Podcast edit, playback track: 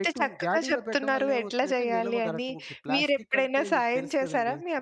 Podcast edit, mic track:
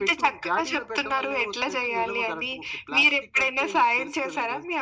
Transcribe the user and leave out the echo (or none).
none